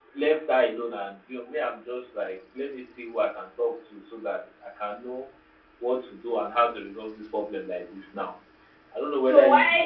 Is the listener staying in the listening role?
No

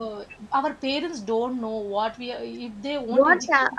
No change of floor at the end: No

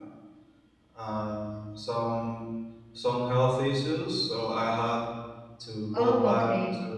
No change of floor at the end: Yes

